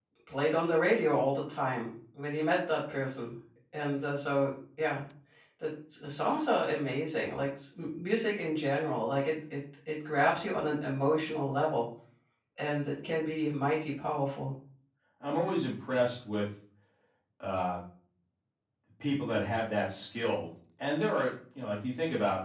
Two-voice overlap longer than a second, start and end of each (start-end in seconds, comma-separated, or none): none